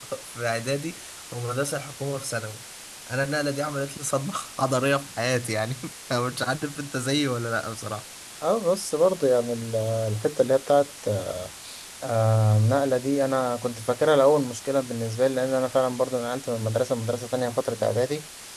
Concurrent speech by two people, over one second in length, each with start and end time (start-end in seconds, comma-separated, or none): none